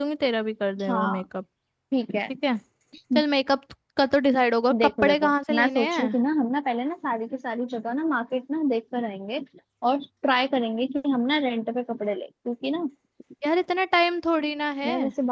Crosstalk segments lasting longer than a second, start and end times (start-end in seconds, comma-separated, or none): 4.8-6.1